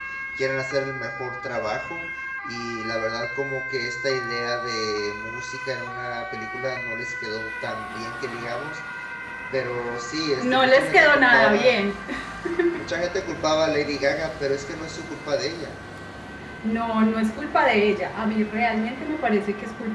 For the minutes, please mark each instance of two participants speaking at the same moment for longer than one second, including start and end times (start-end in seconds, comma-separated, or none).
10.4-11.8